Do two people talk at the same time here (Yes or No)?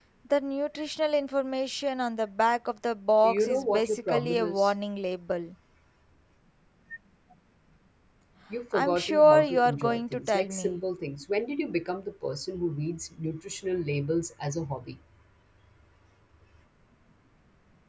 Yes